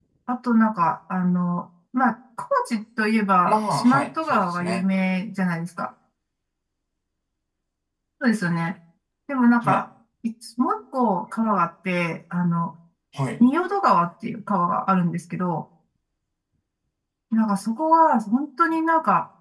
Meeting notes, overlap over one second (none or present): present